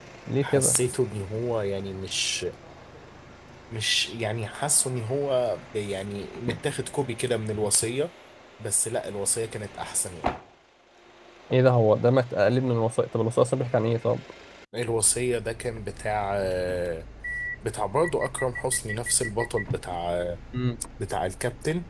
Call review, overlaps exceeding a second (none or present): none